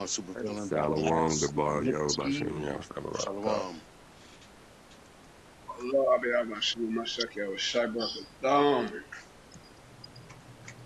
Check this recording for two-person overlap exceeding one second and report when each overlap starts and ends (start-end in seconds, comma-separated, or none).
0.6-2.7